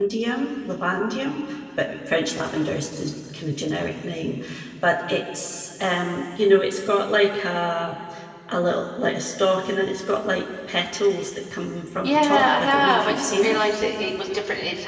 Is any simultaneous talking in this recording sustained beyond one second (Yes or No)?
Yes